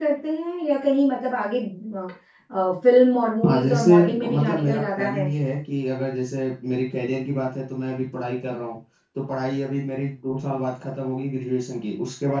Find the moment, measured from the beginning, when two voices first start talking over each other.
3.5 s

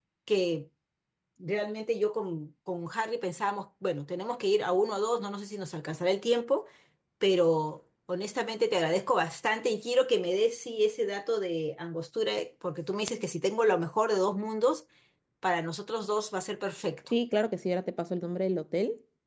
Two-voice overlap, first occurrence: none

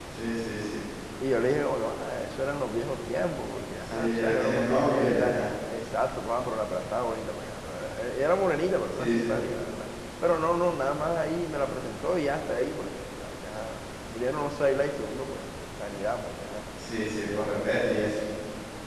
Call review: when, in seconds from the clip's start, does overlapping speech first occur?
3.9 s

